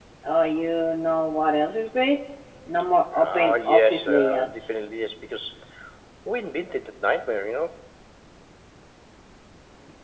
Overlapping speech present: Yes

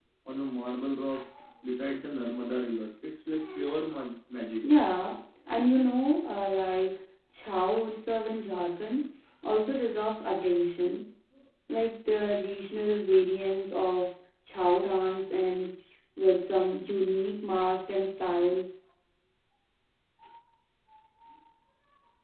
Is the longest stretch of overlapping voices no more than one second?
Yes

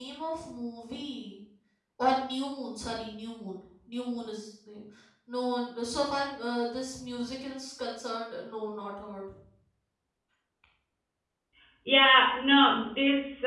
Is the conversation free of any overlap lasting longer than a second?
Yes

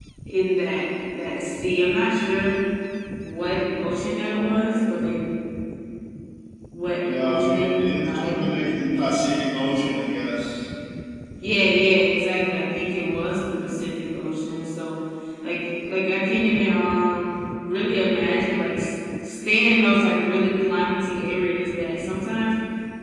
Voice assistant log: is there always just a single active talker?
No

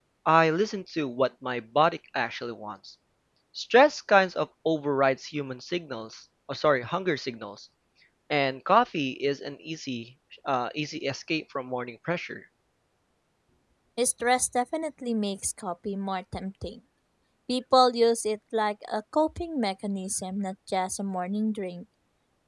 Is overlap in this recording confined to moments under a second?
Yes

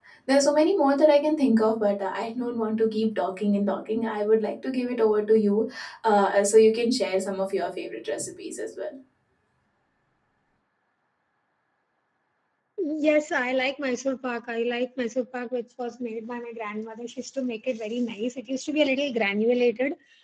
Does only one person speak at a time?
Yes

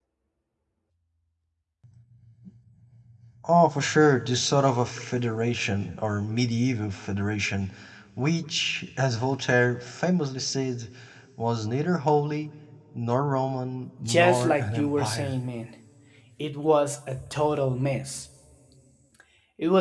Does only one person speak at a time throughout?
No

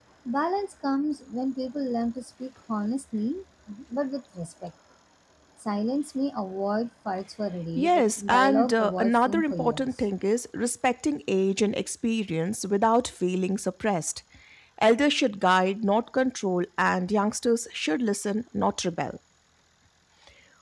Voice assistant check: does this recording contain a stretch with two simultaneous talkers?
Yes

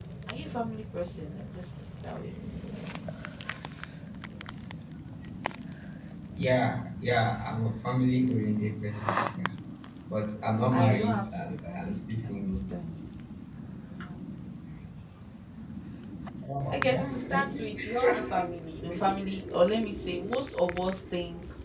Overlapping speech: Yes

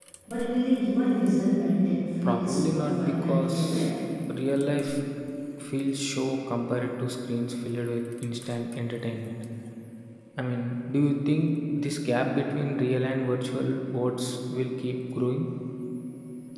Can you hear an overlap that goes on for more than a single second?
Yes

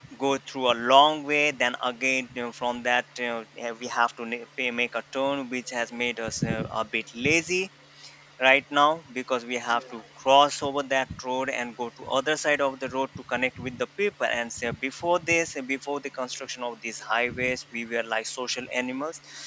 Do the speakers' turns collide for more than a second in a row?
No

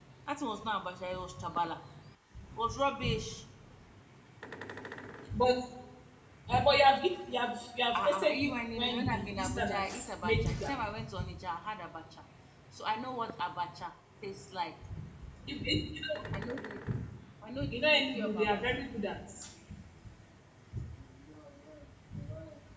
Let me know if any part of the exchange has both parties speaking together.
Yes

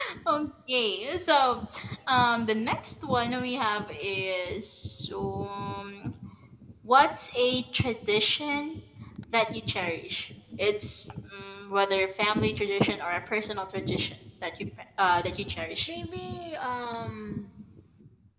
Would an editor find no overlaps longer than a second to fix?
Yes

